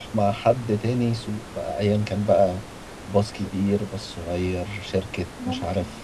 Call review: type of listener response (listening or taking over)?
listening